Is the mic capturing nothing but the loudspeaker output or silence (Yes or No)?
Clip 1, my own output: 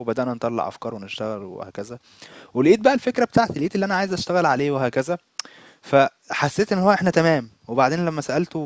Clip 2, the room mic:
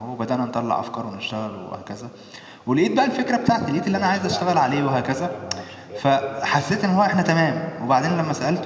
No